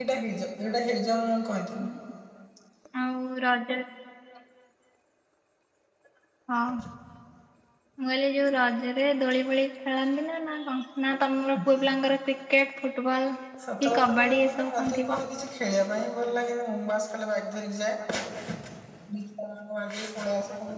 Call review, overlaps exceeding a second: present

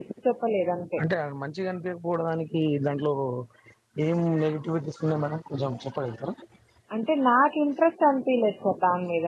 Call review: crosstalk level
none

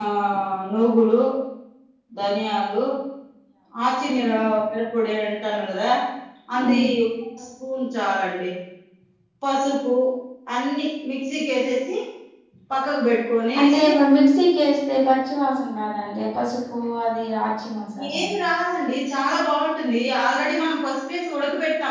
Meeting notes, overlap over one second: none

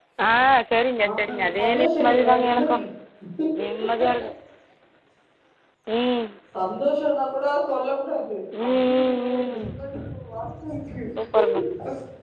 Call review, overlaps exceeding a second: present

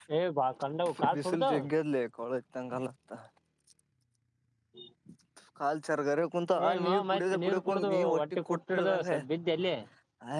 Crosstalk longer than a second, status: present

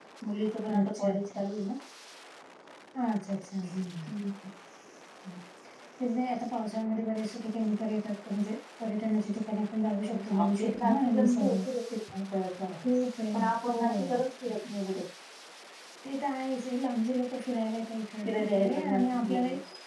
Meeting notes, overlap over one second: present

